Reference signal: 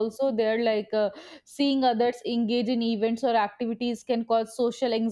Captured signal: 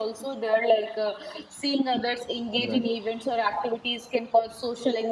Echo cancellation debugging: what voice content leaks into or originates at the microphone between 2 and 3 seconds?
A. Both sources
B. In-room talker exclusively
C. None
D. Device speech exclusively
A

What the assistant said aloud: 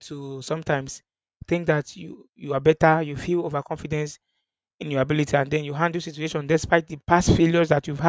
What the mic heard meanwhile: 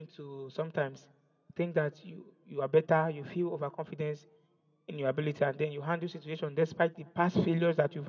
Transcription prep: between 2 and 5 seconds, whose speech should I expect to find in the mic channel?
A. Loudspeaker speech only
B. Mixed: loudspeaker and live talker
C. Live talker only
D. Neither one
A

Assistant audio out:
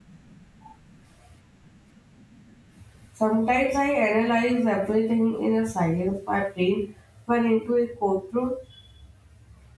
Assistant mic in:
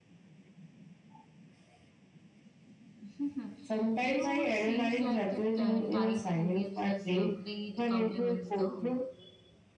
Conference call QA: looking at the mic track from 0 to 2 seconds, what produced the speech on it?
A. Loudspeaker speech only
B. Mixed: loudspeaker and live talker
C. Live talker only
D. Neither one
D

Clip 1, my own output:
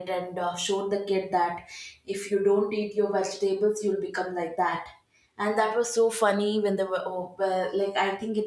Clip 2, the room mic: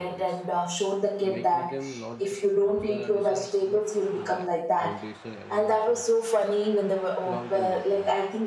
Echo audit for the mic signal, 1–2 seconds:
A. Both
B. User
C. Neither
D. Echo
A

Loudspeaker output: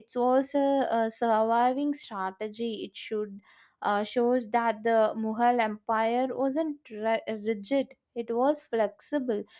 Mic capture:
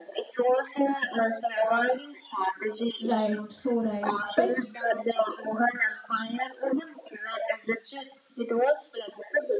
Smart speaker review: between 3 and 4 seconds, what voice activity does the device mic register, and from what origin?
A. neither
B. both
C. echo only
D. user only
B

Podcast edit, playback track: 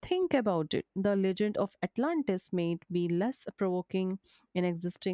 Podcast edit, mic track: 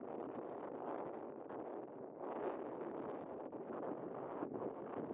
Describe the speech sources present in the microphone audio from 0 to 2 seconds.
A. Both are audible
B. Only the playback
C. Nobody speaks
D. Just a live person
C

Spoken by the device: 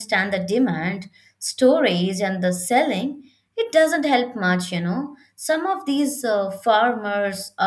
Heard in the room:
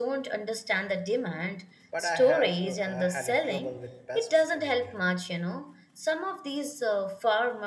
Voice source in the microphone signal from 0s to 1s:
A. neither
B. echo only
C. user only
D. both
B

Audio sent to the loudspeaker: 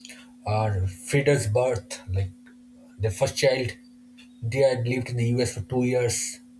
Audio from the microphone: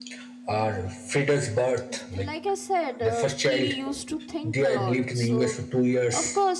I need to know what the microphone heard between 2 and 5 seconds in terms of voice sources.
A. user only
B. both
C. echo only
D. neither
B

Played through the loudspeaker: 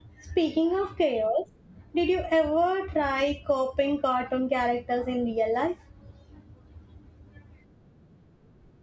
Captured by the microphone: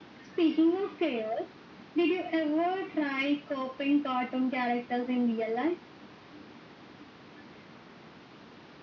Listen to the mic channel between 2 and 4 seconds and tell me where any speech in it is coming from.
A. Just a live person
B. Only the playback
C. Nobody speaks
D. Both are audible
B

